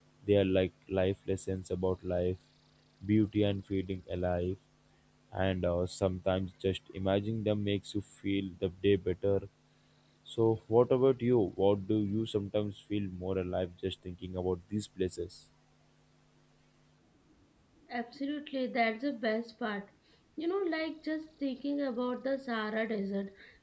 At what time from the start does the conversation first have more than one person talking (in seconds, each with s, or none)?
none